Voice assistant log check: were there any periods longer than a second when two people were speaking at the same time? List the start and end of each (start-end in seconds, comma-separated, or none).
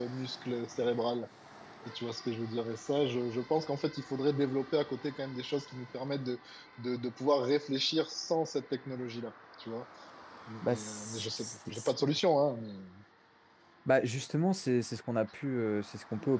10.6-11.9